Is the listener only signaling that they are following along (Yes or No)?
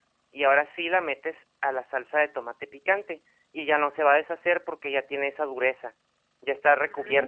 No